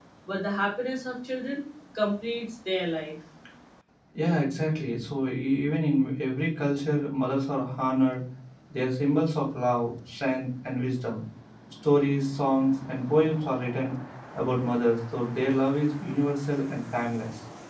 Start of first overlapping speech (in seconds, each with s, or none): none